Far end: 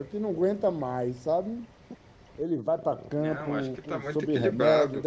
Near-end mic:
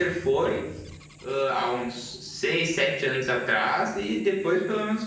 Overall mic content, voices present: user only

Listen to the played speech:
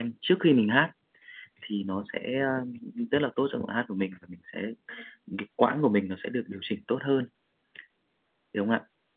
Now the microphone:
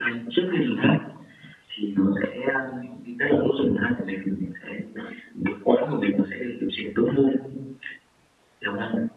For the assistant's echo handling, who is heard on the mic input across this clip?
echo only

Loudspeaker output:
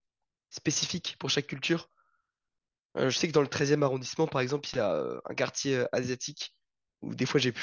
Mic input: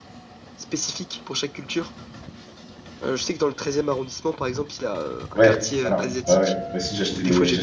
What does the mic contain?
both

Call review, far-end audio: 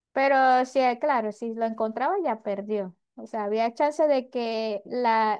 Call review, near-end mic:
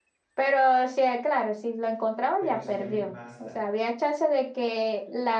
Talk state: both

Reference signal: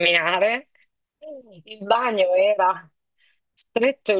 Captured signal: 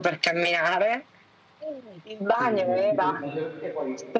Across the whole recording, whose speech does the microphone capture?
both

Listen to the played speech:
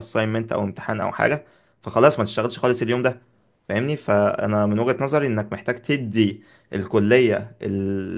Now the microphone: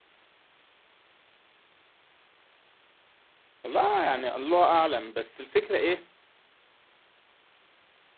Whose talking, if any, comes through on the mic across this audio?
user only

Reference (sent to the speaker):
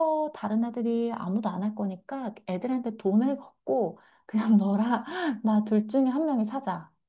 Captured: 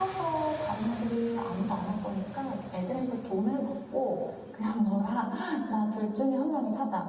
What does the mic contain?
echo only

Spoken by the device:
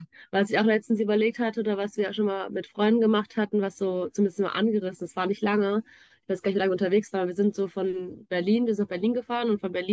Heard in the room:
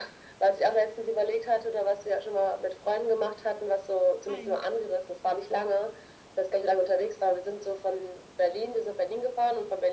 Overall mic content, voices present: both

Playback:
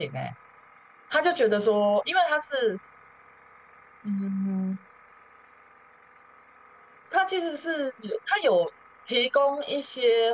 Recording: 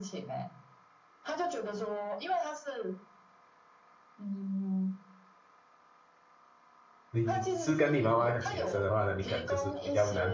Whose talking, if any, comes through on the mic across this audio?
both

